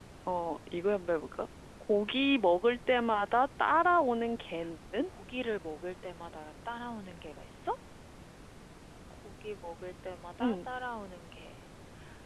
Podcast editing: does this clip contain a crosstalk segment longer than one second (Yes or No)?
No